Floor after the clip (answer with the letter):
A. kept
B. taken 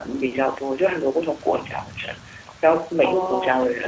A